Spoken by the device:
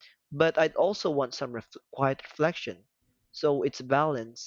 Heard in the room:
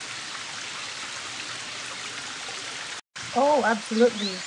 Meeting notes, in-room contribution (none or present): present